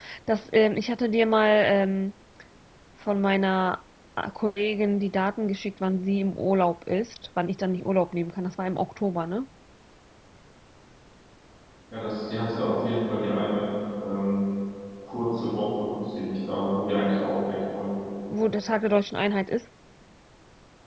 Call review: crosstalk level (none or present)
none